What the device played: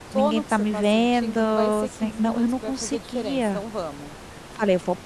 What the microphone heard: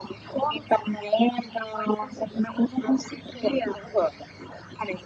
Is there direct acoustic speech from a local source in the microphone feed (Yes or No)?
No